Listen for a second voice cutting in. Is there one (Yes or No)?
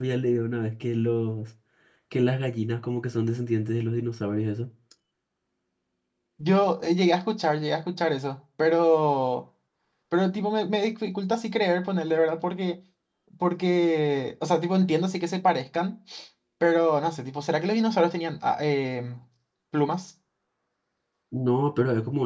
No